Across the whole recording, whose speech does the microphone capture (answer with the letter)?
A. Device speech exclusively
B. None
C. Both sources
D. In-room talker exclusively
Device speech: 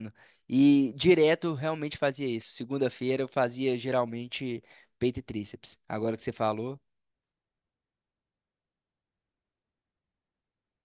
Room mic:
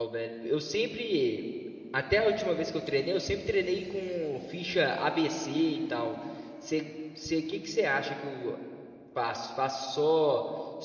D